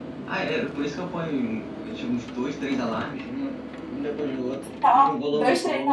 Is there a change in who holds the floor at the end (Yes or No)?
Yes